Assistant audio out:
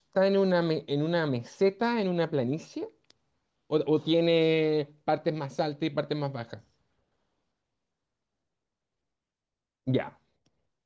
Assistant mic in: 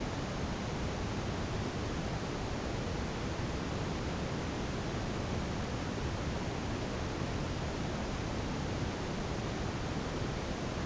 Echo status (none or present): none